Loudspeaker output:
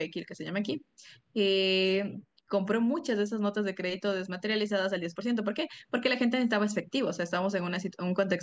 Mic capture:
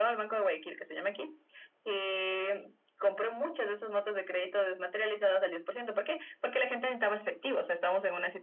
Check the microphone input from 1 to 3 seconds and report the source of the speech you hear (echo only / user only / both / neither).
echo only